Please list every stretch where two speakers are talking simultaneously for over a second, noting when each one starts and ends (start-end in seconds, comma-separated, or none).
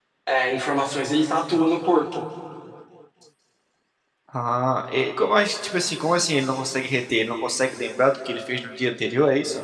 none